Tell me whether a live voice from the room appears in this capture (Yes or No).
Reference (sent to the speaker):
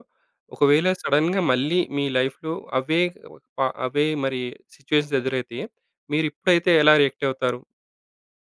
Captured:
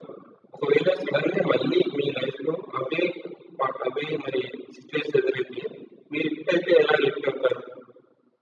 No